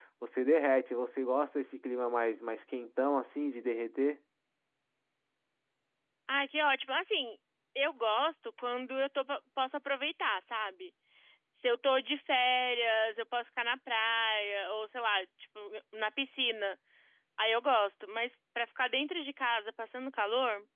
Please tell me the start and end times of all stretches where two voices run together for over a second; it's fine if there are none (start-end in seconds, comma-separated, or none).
none